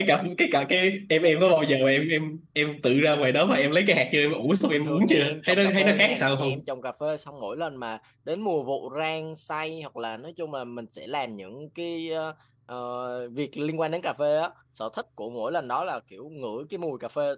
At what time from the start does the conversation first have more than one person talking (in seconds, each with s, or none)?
4.7 s